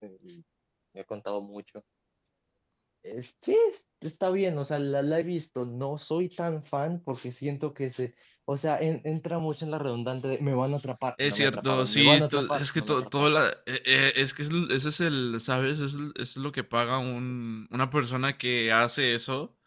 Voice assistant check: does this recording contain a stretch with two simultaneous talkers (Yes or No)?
Yes